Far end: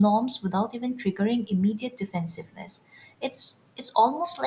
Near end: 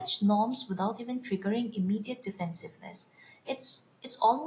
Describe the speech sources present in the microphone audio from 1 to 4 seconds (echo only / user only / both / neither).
echo only